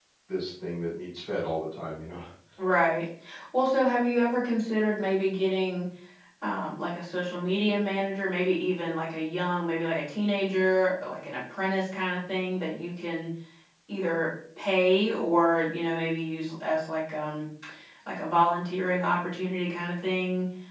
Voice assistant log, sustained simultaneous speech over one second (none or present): none